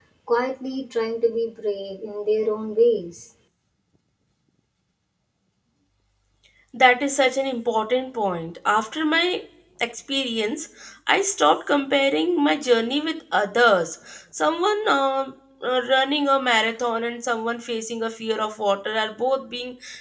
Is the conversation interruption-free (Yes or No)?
Yes